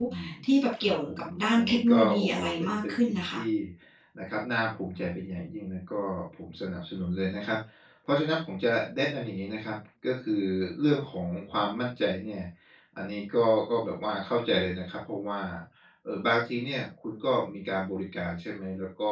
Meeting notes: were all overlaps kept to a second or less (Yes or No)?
No